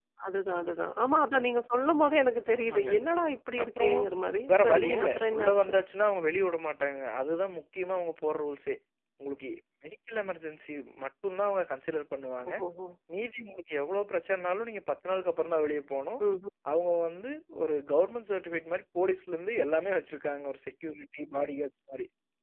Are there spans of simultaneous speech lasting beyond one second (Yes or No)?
Yes